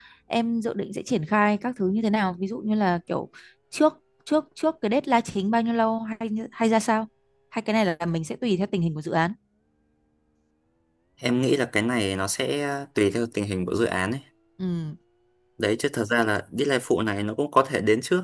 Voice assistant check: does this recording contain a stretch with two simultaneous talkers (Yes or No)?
No